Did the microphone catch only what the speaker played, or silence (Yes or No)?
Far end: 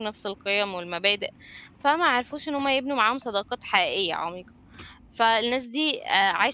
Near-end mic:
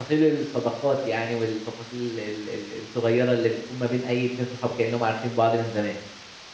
No